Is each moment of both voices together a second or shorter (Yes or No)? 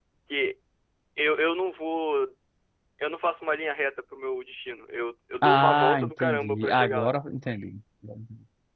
No